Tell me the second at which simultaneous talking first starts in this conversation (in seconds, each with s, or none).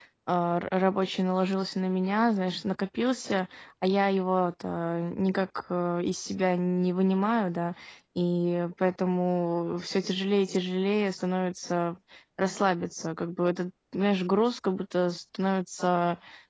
none